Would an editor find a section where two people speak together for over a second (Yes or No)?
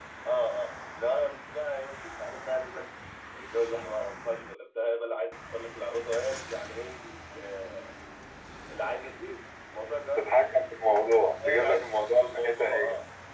Yes